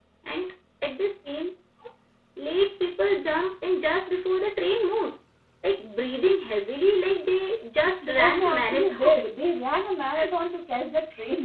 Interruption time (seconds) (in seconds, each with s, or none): 8.0 s